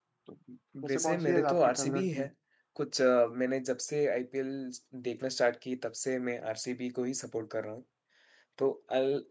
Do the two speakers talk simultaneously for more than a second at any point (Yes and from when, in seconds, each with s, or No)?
Yes, from 0.9 s